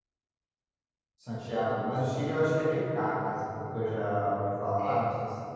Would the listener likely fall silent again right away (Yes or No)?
No